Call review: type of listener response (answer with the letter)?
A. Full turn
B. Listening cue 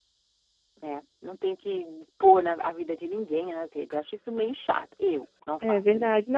A